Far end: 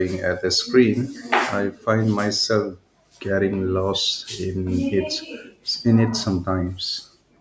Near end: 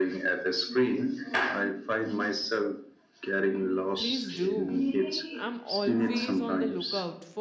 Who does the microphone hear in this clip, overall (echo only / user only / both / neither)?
both